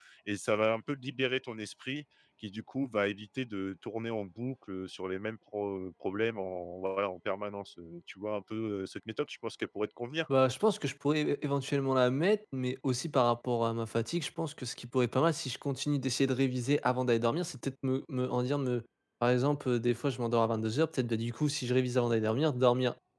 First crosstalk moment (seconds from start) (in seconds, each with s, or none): none